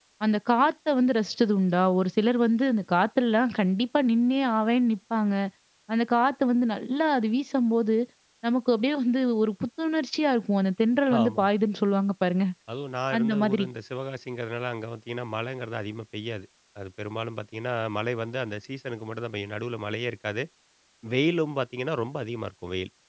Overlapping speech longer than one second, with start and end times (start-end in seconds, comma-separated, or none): none